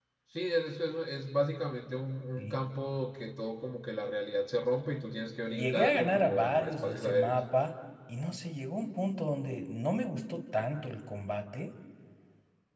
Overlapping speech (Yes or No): Yes